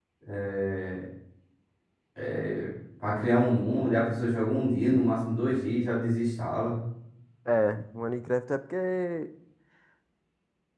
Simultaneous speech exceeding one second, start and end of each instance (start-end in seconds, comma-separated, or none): none